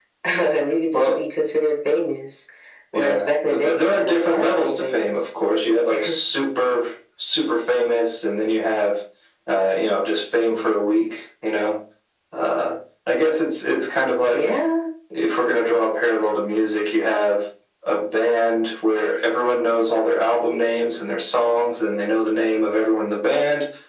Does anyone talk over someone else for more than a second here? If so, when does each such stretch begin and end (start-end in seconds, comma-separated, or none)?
2.9-5.1